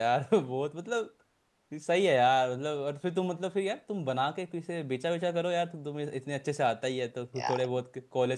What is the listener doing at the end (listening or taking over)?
listening